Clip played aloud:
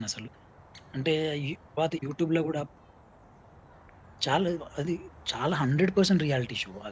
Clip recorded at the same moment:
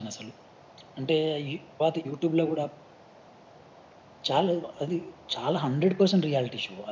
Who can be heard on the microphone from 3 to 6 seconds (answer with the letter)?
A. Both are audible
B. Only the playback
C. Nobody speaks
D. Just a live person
B